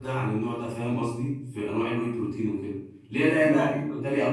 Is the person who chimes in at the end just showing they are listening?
Yes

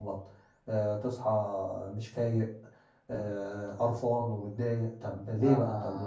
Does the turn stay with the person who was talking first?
No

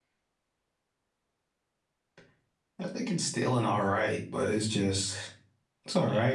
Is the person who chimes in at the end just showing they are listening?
Yes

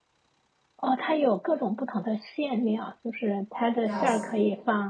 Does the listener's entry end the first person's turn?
No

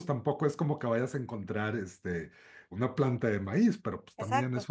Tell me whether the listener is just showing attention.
Yes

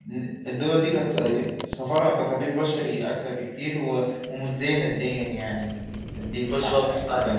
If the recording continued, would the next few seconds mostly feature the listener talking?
Yes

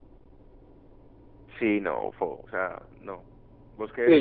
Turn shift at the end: Yes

